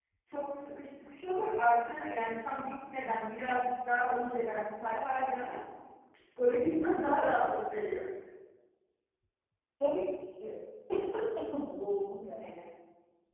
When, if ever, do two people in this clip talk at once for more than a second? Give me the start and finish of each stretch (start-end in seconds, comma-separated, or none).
none